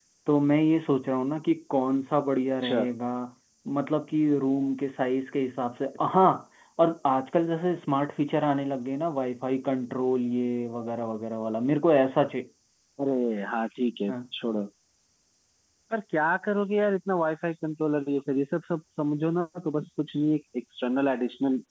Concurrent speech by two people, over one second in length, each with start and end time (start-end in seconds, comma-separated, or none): none